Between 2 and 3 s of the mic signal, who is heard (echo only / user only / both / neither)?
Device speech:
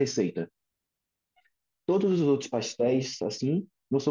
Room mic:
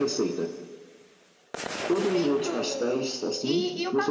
both